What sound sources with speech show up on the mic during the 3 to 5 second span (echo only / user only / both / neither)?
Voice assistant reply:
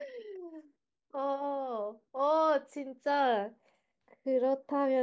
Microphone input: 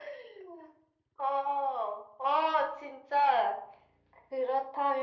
echo only